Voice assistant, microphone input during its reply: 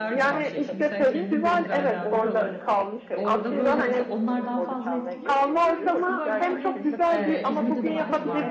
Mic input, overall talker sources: both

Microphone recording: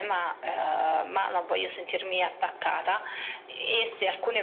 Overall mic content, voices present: echo only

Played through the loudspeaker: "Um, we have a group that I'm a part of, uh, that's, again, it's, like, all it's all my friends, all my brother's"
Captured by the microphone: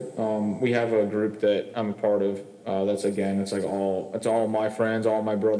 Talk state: echo only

